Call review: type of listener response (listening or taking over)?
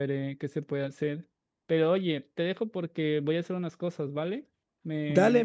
taking over